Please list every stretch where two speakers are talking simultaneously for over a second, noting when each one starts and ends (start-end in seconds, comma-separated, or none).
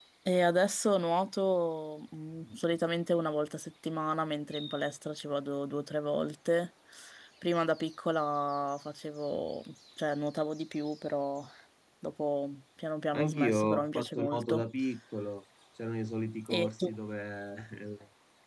13.1-14.6